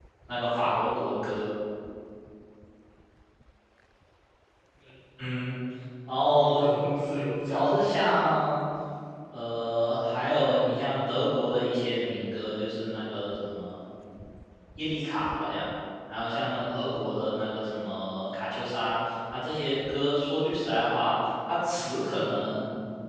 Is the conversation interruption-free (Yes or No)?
No